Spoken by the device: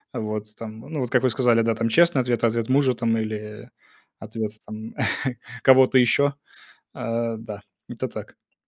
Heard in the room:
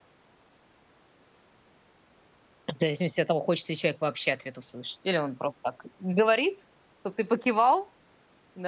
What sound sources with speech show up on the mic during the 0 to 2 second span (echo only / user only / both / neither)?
neither